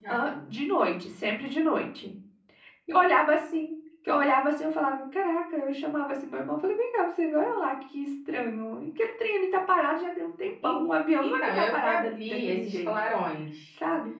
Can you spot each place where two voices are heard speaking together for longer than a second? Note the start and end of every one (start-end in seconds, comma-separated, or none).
11.2-12.9